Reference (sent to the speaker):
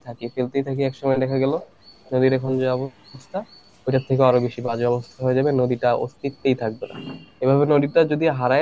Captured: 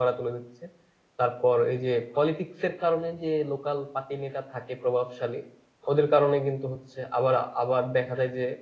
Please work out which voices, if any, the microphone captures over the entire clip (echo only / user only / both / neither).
user only